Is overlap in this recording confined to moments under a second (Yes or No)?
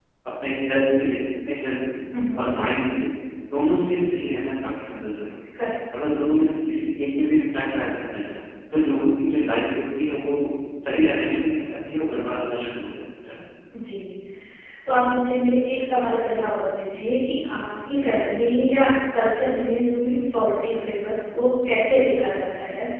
Yes